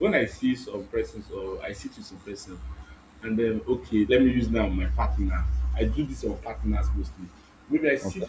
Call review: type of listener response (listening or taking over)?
listening